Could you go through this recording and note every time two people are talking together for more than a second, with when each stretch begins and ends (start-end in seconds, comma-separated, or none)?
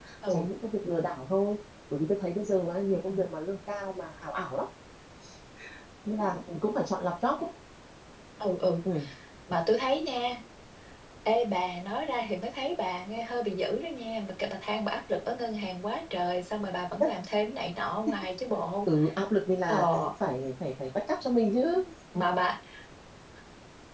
none